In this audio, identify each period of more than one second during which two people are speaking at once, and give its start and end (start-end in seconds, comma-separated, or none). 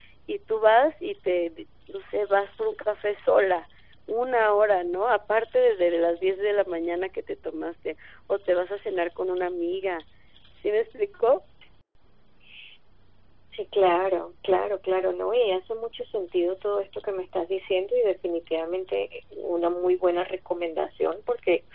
none